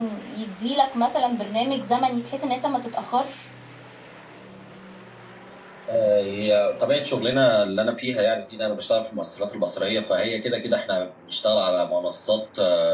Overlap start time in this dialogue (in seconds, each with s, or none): none